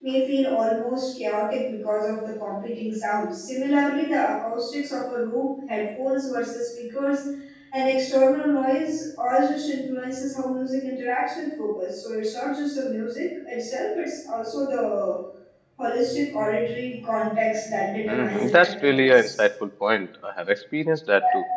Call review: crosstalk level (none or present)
present